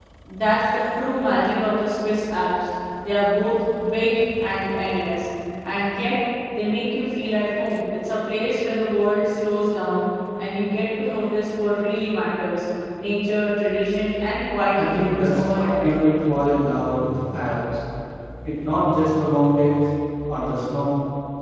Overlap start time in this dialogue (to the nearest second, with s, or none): 15 s